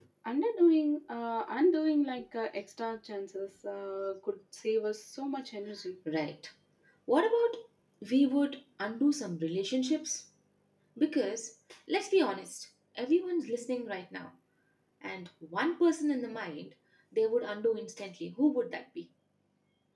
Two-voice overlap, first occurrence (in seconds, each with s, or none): none